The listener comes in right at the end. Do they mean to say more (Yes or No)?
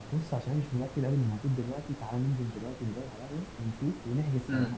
Yes